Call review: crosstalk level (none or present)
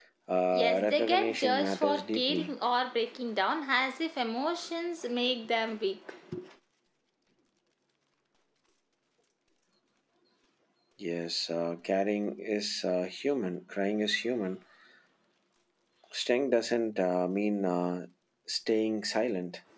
present